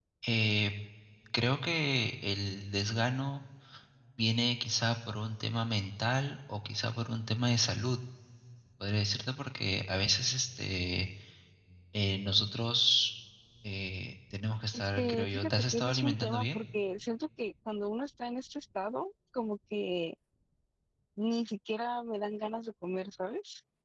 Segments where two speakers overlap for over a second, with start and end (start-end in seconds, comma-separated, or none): 14.7-16.6